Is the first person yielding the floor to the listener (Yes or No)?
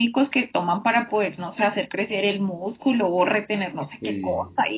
No